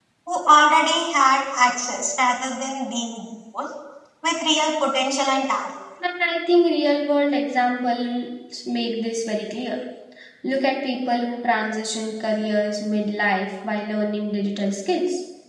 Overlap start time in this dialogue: none

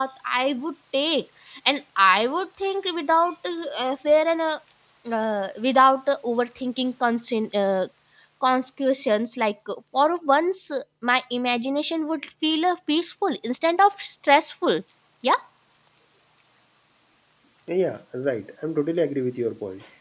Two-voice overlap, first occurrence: none

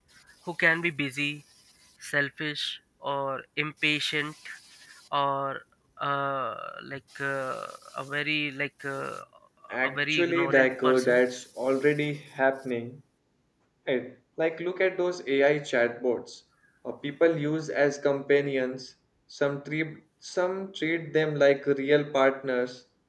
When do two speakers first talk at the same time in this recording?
9.8 s

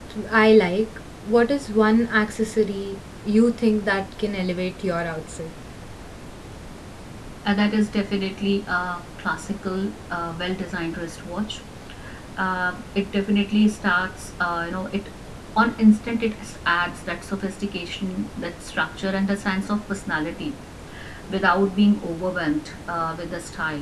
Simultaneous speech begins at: none

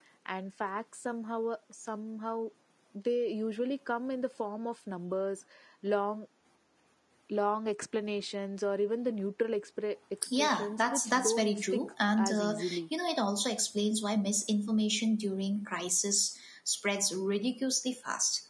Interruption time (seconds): 10.2 s

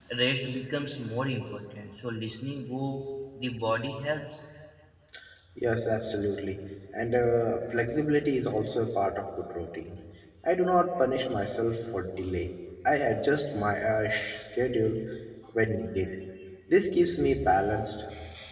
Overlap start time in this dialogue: none

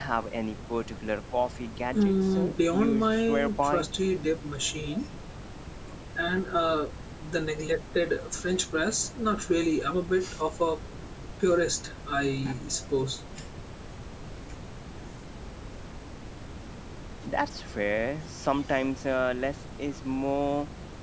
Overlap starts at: 1.9 s

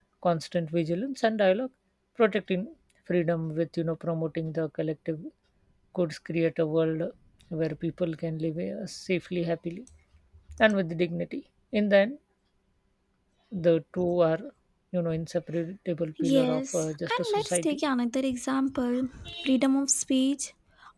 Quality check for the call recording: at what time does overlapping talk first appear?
16.2 s

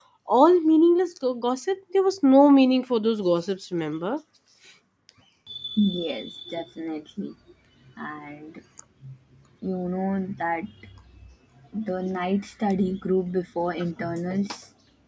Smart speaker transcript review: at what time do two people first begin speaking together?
none

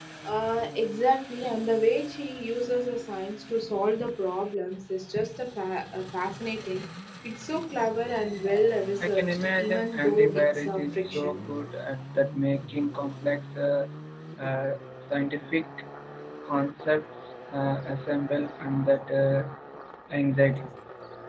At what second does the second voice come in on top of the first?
9.0 s

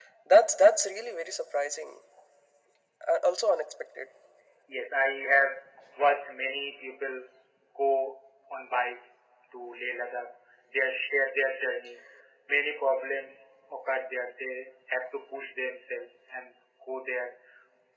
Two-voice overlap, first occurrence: none

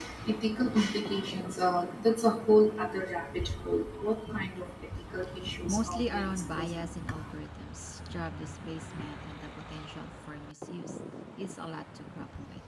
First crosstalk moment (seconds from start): 5.7 s

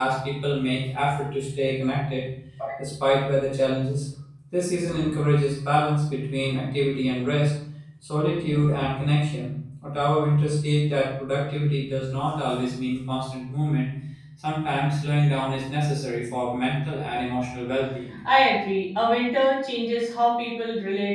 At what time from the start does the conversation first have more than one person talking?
none

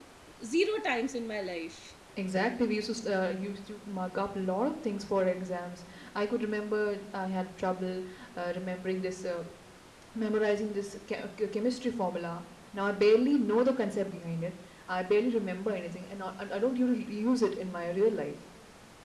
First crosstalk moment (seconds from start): none

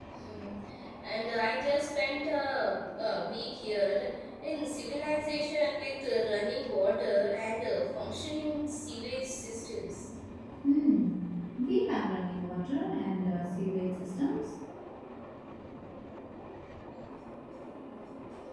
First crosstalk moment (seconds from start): none

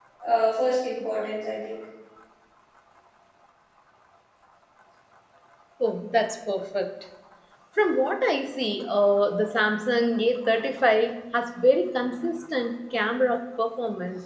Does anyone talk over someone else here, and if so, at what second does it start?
none

